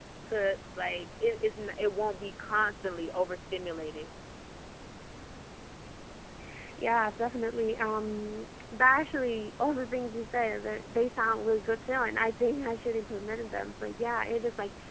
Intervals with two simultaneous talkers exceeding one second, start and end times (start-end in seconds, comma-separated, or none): none